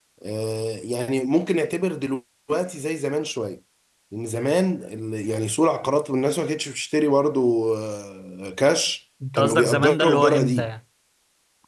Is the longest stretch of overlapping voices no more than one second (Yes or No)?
No